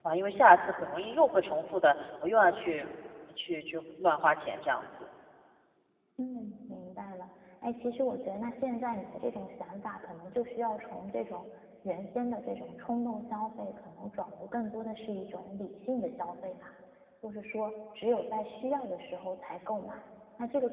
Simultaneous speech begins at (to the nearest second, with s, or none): none